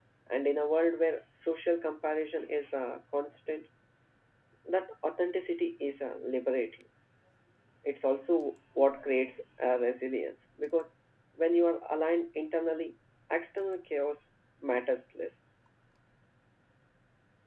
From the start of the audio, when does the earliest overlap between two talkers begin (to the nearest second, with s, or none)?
none